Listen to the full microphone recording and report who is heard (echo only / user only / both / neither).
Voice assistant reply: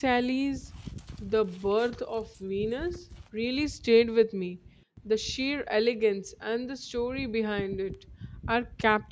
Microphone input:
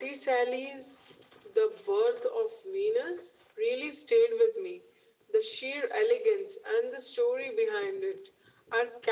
echo only